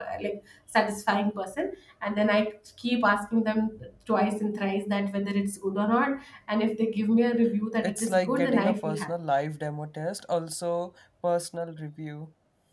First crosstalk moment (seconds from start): 7.8 s

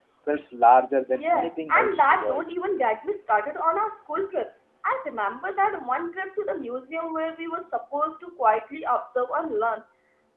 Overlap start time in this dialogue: 1.2 s

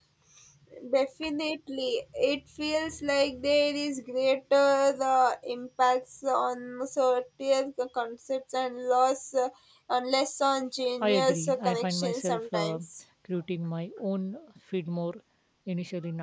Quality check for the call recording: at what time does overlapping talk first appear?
11.0 s

